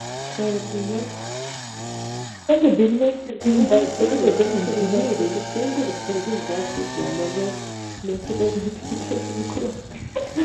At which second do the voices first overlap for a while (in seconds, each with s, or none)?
3.5 s